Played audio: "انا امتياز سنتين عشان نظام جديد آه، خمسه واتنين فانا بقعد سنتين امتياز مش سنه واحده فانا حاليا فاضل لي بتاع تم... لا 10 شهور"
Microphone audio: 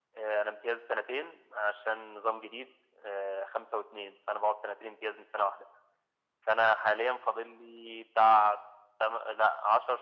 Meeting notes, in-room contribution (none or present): none